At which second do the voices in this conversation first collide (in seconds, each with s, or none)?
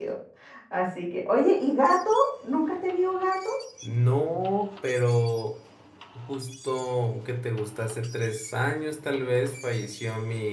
none